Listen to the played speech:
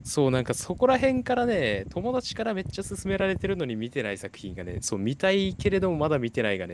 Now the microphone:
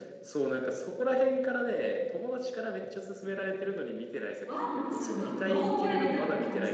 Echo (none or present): present